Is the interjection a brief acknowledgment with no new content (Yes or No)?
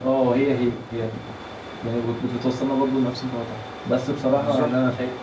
Yes